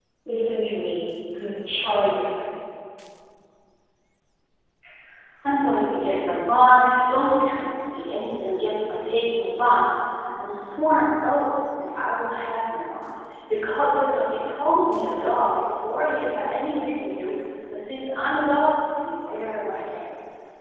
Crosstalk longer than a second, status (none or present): none